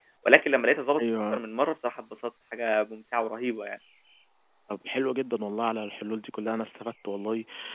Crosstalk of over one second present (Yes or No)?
No